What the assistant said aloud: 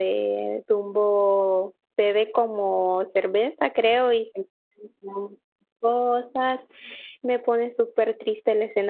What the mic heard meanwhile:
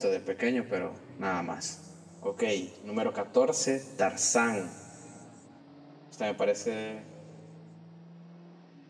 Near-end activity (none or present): present